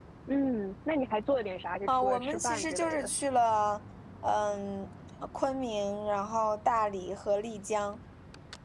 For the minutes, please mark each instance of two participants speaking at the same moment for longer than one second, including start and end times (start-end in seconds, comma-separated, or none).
1.9-3.1